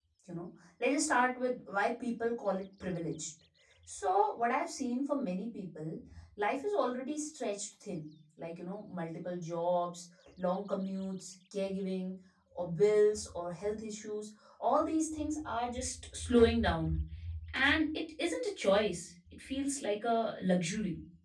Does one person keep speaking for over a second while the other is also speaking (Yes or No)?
No